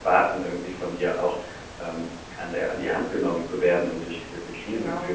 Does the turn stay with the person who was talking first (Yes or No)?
Yes